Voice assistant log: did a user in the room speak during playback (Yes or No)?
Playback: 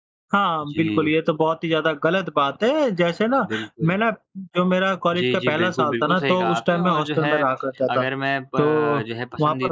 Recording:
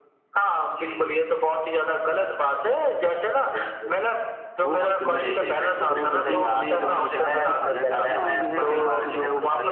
Yes